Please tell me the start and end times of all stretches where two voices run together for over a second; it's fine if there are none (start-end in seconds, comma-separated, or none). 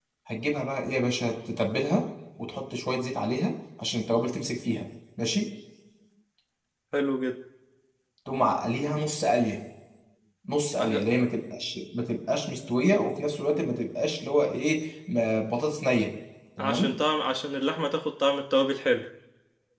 none